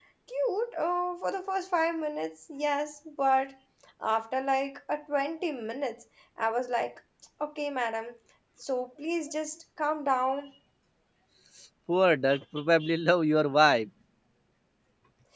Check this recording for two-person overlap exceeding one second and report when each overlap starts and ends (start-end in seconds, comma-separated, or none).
none